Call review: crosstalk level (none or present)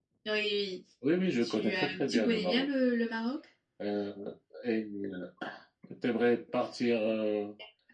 present